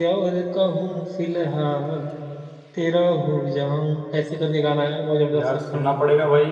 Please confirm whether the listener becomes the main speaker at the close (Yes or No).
Yes